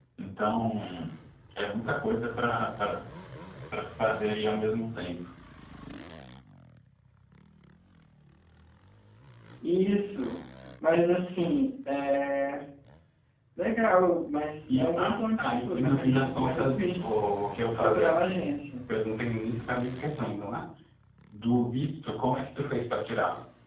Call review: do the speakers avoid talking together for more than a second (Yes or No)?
No